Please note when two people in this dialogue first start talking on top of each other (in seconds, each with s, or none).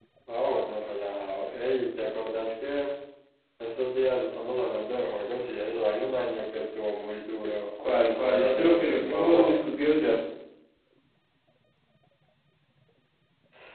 8.3 s